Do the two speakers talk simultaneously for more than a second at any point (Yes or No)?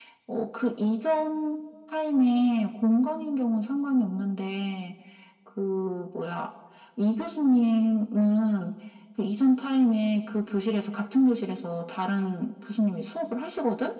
No